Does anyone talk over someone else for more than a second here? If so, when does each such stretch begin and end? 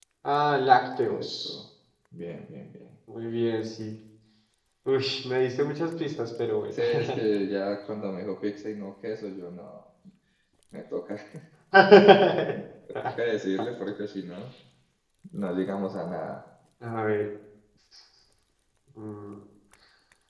none

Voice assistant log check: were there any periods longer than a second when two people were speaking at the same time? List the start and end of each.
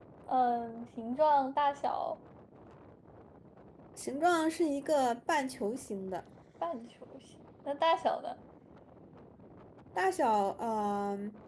none

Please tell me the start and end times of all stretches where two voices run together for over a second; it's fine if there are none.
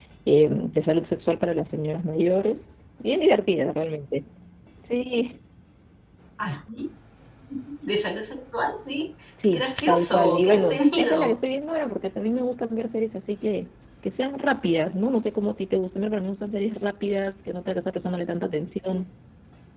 9.4-11.3

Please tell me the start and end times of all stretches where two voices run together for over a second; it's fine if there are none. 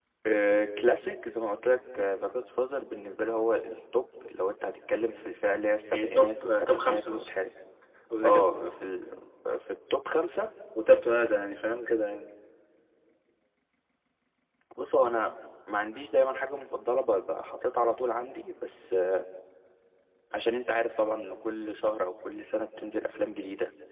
5.9-7.3

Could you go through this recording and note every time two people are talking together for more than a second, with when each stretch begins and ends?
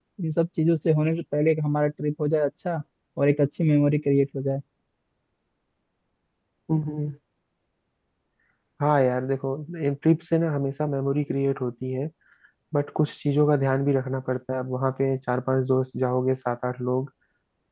none

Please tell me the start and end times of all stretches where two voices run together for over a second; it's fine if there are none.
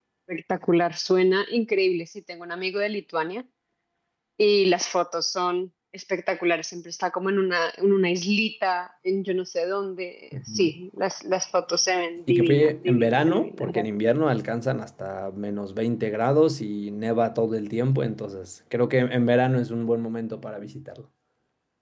12.3-13.8

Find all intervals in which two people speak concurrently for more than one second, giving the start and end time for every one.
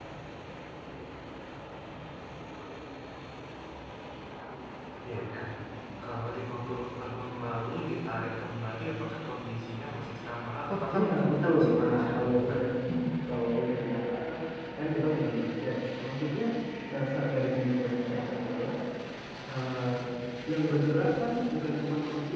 10.9-12.6

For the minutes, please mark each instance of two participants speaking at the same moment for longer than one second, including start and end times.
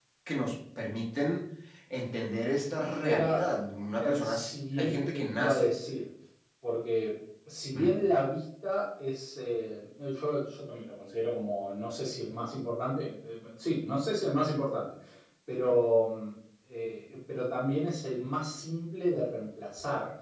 3.9-5.8

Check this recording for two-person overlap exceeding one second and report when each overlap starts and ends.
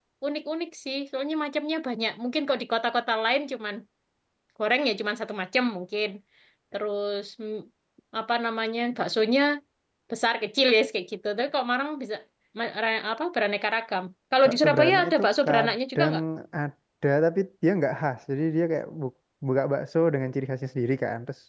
14.4-16.2

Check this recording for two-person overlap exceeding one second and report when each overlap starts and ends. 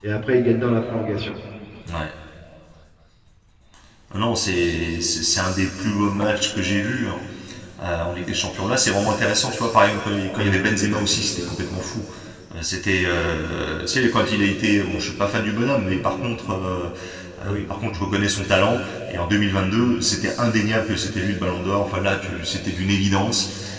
10.3-12.0

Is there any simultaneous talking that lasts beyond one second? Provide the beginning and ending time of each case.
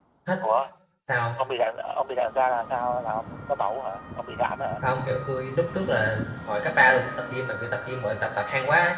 none

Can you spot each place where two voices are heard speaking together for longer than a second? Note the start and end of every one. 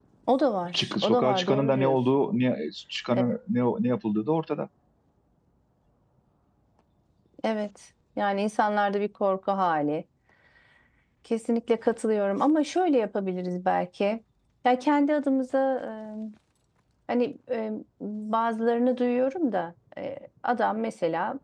0.7-2.0

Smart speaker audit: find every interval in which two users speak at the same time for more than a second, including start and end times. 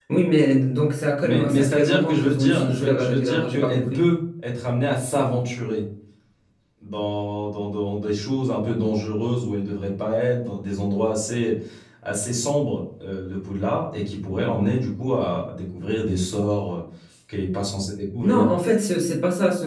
1.2-4.0

